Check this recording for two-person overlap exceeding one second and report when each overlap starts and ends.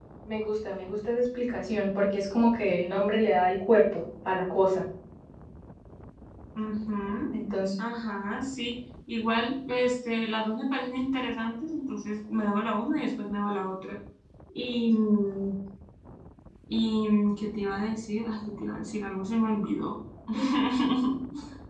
none

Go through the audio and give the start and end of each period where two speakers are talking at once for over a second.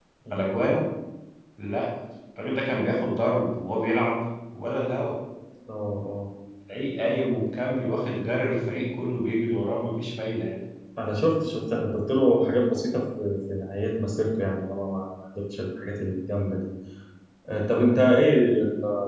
none

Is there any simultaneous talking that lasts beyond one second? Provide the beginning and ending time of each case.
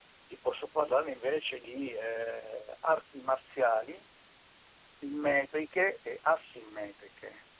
none

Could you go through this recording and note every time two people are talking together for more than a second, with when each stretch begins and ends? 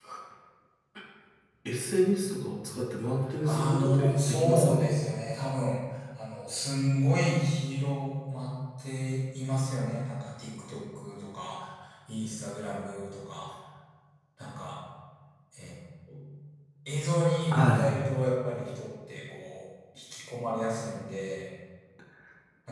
3.4-4.9

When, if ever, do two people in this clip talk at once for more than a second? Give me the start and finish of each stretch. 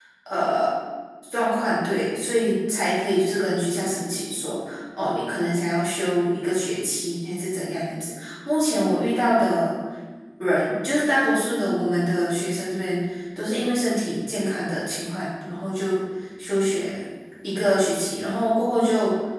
none

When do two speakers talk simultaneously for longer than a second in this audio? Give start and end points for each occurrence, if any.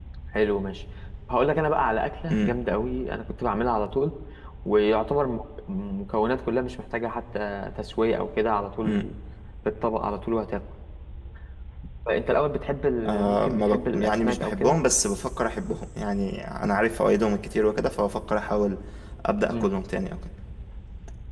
13.1-14.8

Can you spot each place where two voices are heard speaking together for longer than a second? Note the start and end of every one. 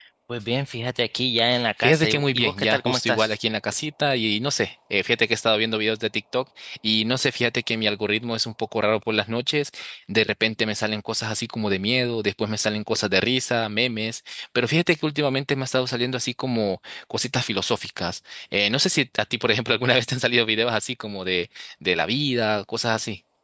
1.8-3.4

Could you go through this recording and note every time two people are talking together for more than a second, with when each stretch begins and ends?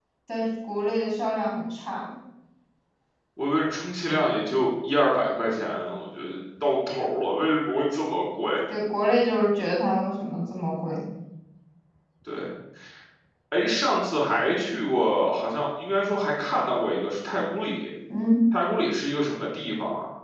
none

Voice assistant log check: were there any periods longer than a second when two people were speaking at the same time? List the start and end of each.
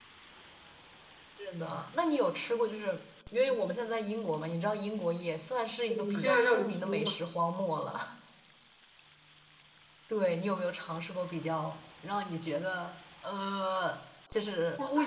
6.0-7.2

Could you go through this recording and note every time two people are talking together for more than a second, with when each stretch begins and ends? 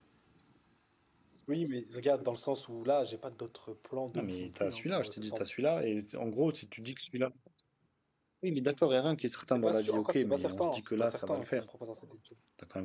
4.1-5.4, 9.5-11.6

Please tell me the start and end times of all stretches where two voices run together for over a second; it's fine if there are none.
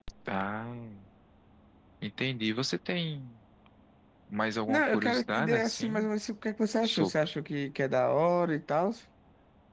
4.7-6.1

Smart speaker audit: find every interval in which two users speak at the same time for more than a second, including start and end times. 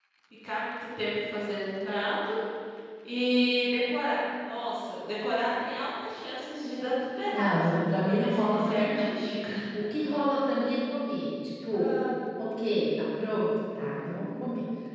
7.3-9.1

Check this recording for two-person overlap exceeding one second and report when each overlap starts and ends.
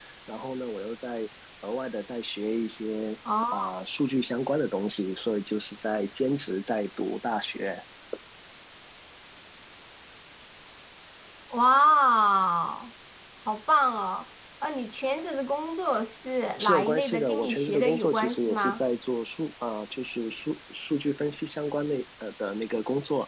16.6-18.8

